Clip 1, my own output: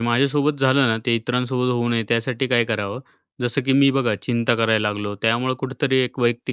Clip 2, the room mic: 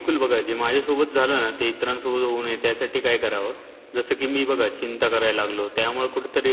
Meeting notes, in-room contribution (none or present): none